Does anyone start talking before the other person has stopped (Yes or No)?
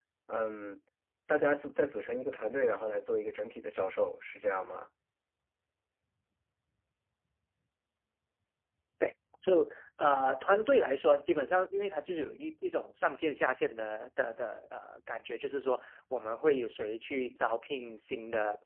No